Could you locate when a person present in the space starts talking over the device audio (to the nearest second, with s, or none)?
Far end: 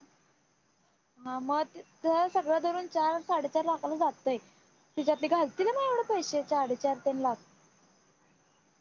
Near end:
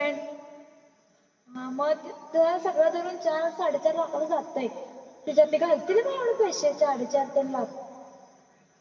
none